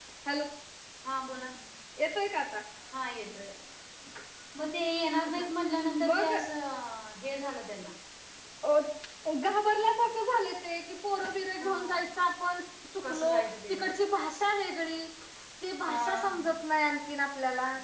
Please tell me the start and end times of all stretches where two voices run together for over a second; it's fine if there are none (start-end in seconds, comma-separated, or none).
none